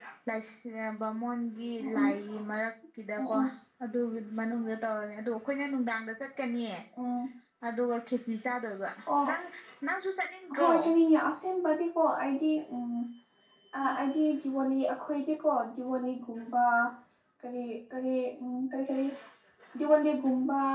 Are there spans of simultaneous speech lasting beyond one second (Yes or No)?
No